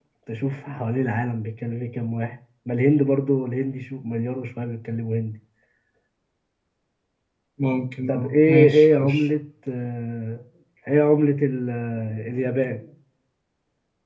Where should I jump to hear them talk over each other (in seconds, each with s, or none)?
8.1 s